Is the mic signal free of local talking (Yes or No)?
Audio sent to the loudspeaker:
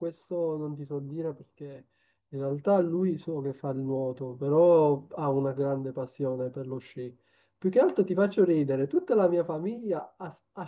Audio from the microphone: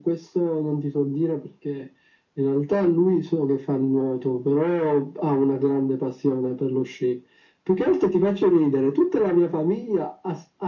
Yes